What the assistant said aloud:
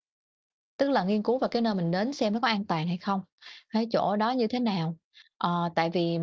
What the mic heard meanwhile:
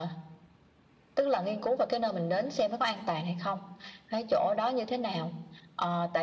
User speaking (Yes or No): No